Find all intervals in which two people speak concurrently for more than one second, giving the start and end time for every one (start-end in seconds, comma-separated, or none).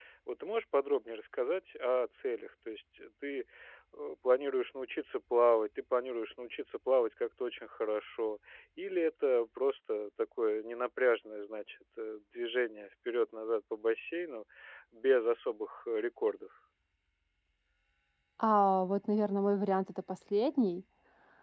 none